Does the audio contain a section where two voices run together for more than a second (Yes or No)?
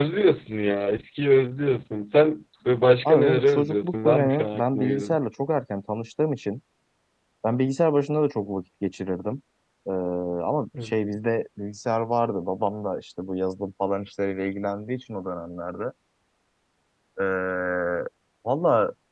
Yes